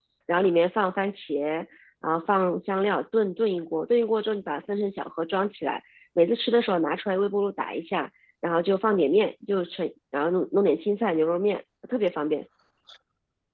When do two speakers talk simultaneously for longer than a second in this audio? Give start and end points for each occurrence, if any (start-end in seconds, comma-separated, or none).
none